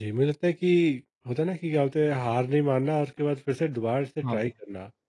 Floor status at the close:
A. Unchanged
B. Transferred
A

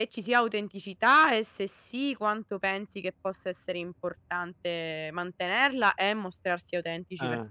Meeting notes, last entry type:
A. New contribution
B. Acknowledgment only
A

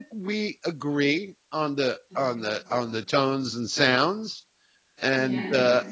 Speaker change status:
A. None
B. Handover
A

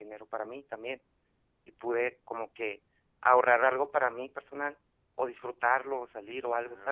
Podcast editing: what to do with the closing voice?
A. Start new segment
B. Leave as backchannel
A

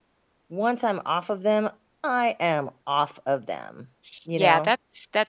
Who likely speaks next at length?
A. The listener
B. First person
A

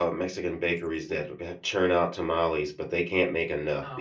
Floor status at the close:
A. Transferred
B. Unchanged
A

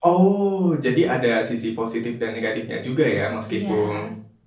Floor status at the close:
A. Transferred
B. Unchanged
B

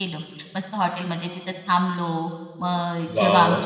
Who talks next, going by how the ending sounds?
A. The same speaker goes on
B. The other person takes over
A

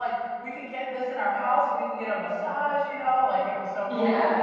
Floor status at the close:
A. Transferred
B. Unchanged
B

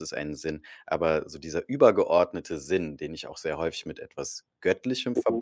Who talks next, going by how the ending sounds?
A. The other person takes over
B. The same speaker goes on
B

